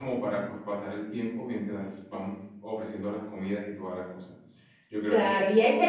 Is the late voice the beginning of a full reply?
Yes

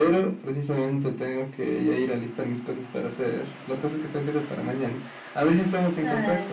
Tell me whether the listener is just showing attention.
No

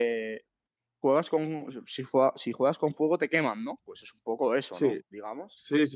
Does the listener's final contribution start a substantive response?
Yes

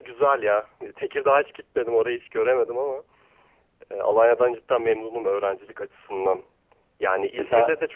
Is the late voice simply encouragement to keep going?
Yes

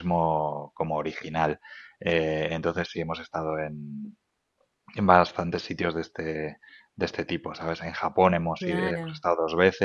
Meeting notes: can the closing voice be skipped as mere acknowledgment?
Yes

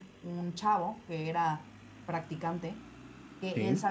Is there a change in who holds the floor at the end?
No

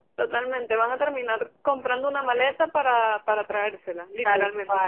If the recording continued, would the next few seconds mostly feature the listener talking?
Yes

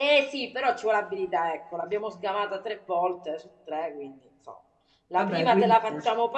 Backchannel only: Yes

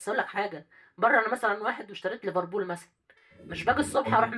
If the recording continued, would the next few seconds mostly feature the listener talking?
No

